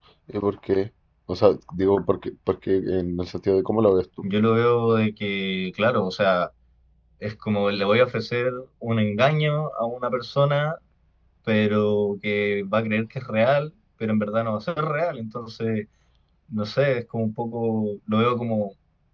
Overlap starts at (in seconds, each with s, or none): none